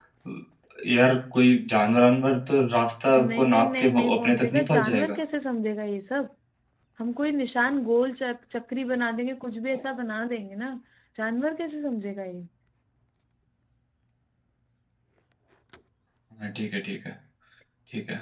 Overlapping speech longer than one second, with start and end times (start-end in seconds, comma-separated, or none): 3.1-5.2